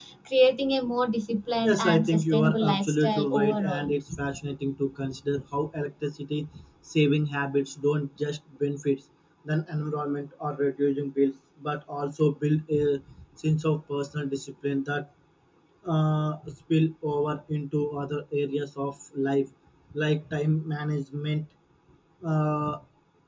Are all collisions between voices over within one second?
No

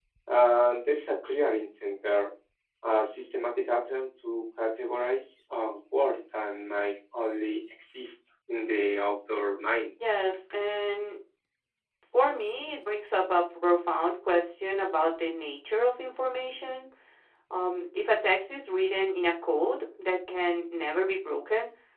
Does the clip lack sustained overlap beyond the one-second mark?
Yes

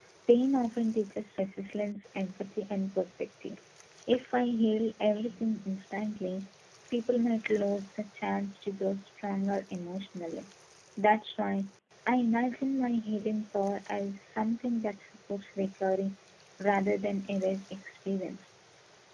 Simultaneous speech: No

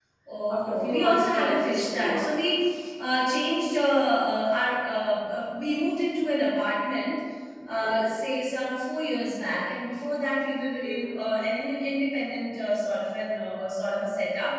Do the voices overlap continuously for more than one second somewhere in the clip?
Yes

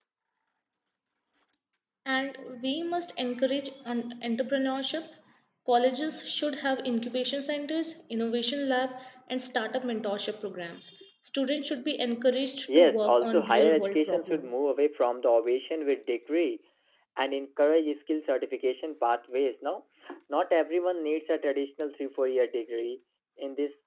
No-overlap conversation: No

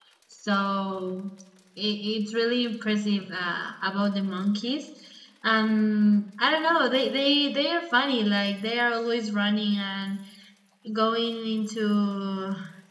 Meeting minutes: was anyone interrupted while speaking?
No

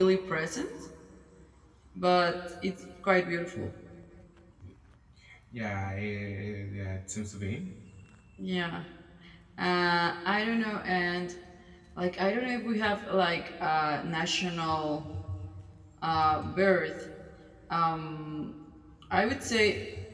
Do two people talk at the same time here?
No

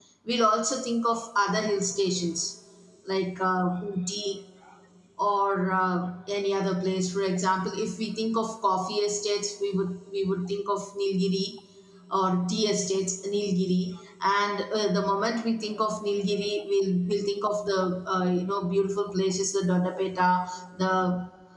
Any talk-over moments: No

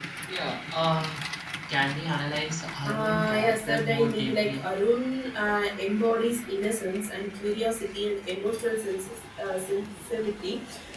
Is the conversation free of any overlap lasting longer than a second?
No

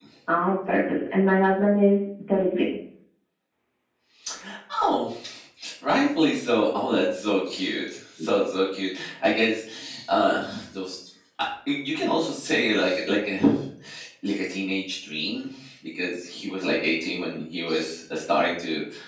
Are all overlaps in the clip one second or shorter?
Yes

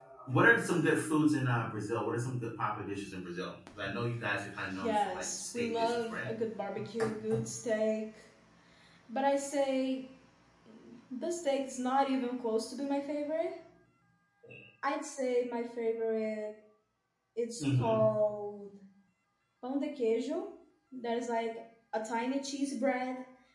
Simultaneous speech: Yes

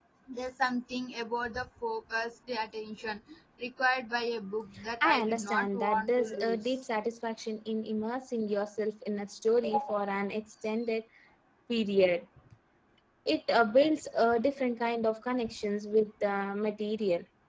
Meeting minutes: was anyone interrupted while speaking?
Yes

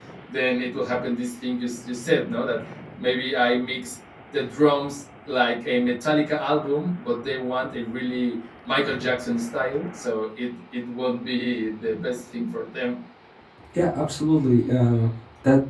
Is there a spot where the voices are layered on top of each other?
No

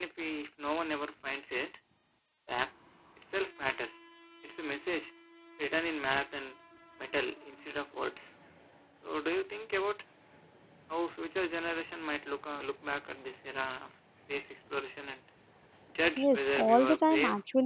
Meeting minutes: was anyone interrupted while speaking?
Yes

